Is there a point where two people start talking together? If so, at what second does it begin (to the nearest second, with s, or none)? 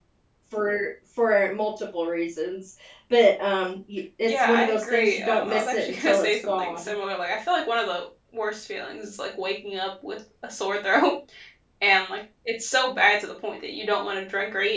4 s